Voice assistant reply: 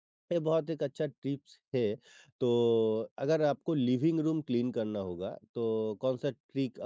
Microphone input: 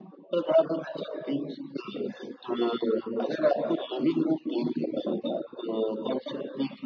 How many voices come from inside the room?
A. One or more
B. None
B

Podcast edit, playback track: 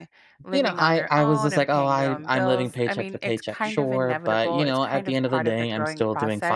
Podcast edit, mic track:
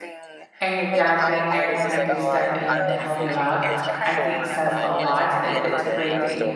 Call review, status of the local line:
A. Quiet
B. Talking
B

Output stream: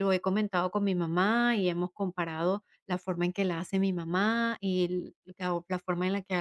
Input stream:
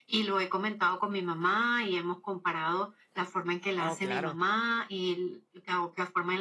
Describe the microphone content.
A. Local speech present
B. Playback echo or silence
A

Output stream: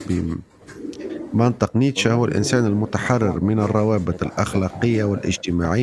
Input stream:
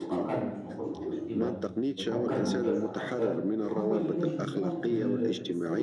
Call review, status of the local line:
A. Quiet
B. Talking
B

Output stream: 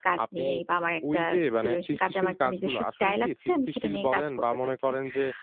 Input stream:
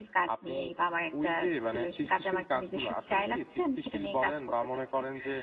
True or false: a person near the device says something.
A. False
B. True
A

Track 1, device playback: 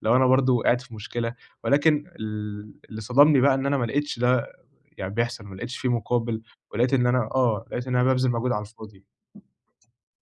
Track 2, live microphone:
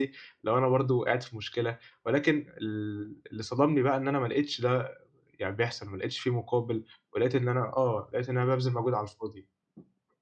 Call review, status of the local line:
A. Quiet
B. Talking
A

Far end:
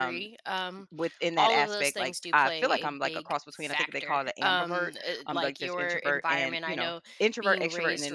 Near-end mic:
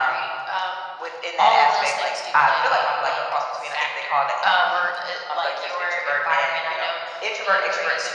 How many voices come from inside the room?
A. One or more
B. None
B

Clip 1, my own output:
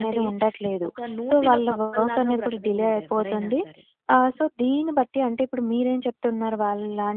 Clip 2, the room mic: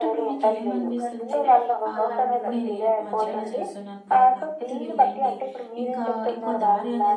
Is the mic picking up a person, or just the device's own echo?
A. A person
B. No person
A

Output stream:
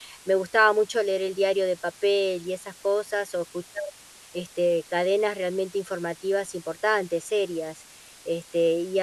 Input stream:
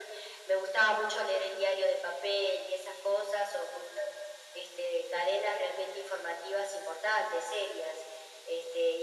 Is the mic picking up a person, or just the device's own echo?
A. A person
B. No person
B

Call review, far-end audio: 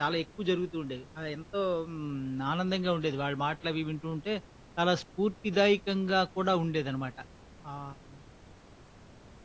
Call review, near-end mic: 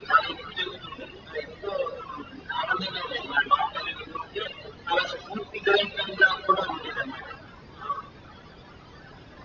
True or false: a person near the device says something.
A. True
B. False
B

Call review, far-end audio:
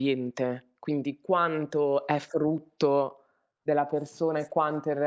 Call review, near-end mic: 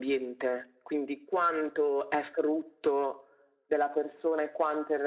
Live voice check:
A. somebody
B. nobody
B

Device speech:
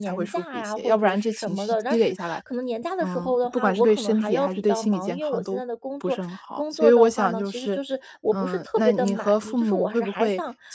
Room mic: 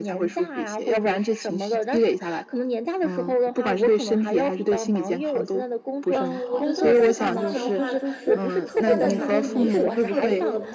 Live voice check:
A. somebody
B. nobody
A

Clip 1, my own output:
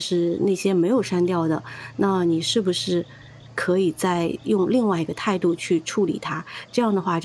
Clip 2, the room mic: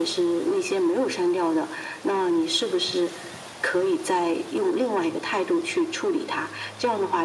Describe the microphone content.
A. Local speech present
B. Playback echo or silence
B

